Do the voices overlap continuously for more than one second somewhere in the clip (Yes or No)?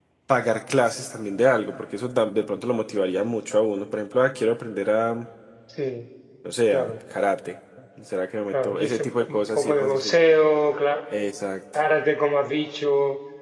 Yes